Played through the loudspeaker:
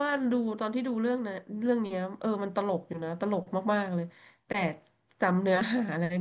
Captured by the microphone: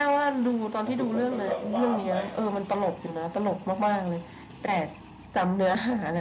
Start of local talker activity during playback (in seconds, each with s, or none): 0.8 s